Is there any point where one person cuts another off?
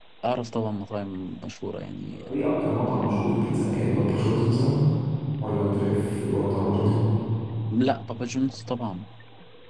No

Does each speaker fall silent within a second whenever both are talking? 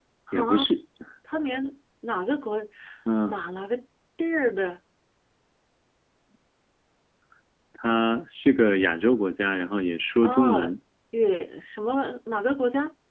Yes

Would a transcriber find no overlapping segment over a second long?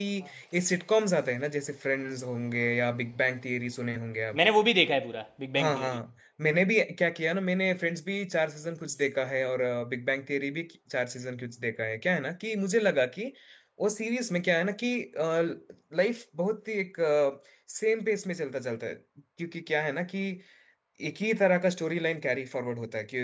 Yes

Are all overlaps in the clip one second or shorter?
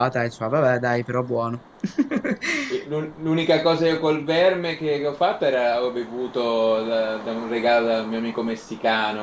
Yes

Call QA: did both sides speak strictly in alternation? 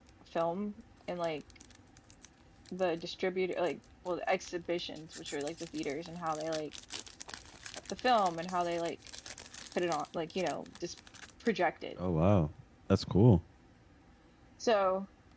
Yes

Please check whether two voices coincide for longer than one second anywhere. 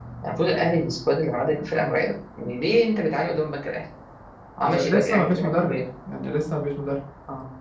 Yes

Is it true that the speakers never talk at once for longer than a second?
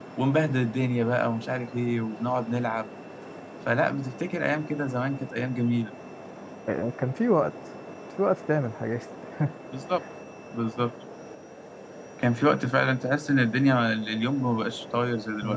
Yes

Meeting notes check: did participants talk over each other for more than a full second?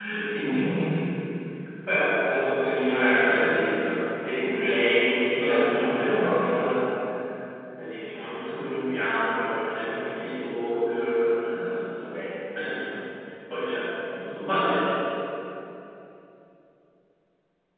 Yes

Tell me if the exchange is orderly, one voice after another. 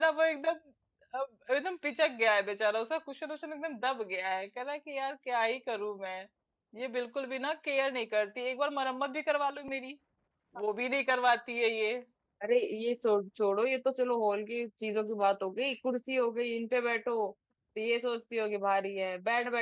Yes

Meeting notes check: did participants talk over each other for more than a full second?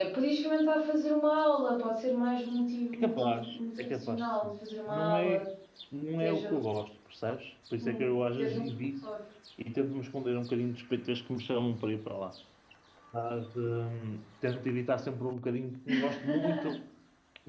Yes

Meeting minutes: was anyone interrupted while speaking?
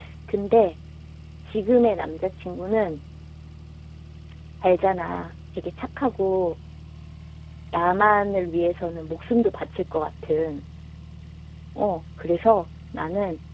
No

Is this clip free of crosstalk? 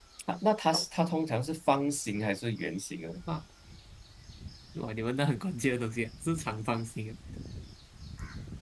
Yes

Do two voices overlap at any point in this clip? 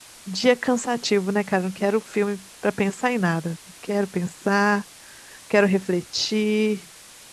No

